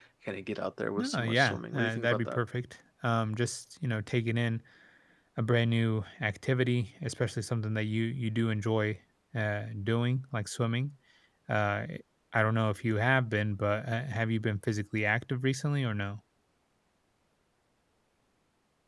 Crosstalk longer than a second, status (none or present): present